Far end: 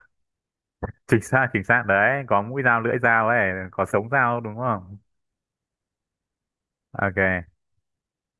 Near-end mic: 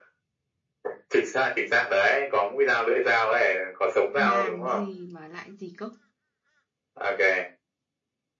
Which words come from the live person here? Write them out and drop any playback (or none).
bàn gì mà lại gì cốc